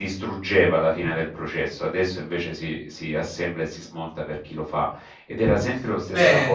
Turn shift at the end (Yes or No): Yes